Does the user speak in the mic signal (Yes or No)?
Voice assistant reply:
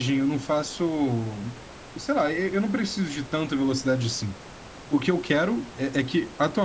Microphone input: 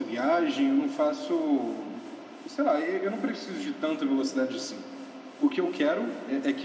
No